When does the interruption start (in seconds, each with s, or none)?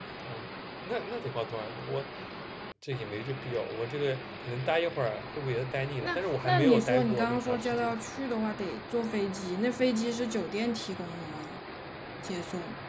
6.0 s